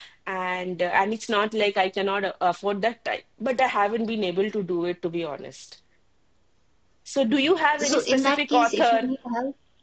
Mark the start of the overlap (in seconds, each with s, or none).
7.8 s